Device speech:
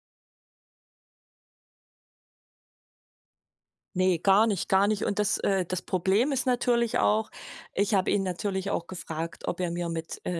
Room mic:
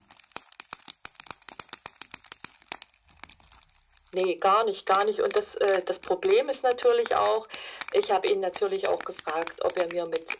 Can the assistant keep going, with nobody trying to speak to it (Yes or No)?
Yes